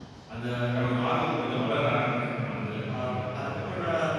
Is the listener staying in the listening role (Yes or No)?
No